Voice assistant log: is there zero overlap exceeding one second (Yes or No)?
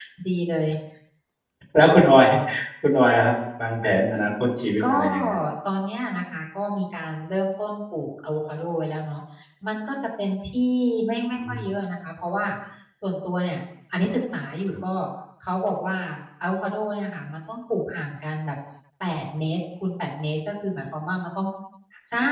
Yes